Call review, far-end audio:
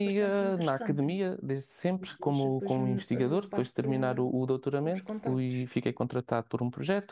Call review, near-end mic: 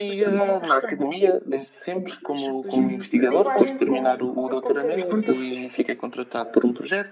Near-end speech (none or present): present